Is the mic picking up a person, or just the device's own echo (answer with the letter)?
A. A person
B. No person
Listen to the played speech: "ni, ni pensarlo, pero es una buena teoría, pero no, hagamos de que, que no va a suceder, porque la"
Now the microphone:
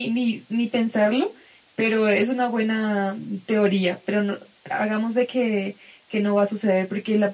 B